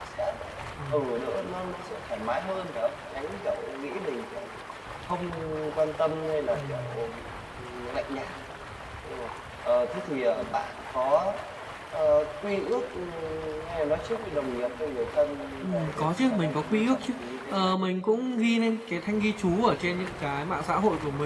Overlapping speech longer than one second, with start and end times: 15.7-17.0

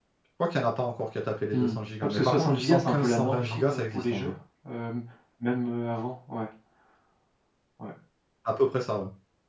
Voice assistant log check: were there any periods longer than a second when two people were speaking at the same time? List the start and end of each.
1.5-4.3

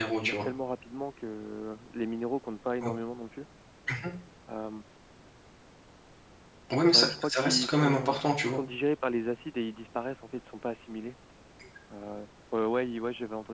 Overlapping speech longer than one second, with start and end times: 6.9-8.6

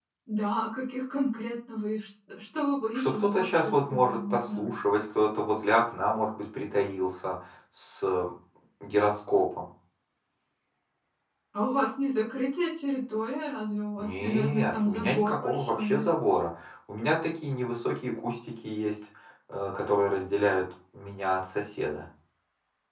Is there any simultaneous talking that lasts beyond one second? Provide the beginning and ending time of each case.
2.9-4.7, 14.0-16.1

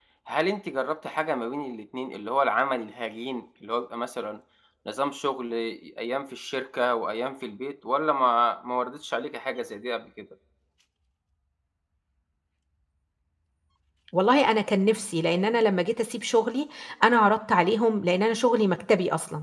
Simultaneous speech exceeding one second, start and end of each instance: none

